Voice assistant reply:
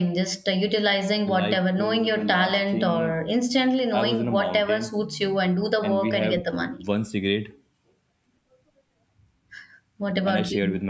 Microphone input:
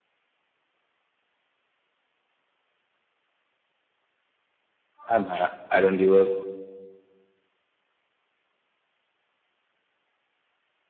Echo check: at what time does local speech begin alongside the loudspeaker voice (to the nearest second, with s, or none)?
5 s